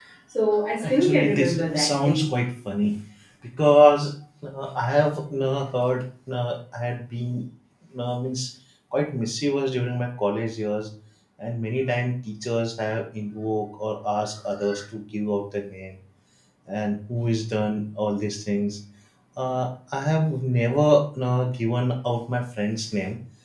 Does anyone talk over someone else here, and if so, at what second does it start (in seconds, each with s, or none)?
0.8 s